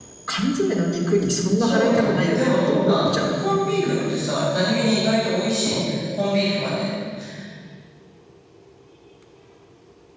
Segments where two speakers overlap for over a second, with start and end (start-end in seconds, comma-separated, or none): 1.6-3.9